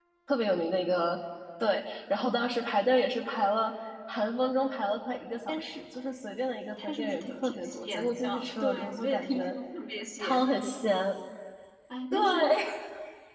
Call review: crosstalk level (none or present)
present